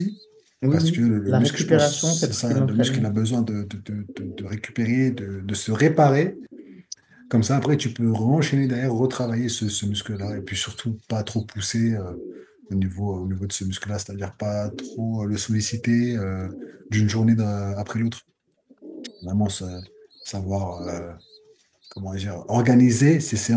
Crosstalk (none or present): present